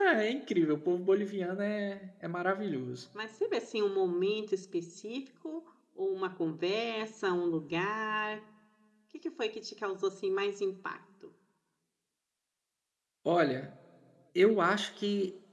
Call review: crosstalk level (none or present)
none